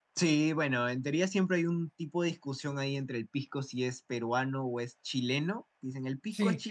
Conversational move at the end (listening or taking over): listening